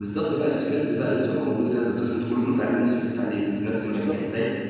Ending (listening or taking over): listening